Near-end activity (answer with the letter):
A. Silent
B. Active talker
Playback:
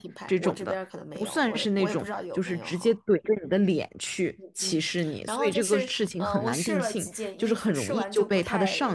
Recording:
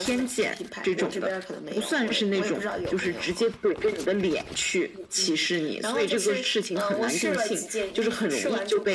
A